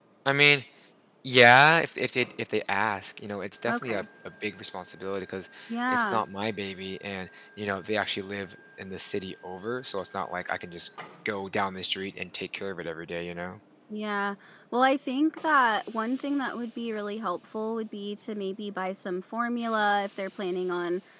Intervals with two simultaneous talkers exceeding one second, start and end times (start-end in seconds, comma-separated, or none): none